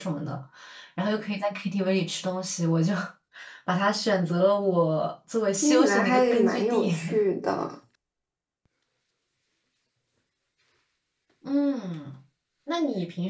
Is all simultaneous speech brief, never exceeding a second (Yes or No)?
No